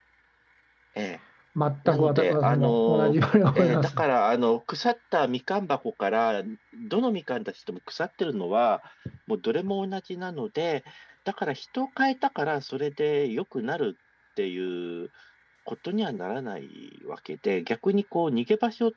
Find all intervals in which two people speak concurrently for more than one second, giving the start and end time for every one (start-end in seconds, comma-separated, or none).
1.9-3.9